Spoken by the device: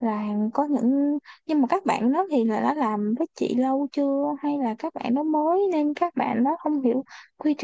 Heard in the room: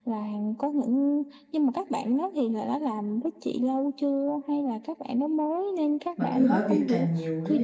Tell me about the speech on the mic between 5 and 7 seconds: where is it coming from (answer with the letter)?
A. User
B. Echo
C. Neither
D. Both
D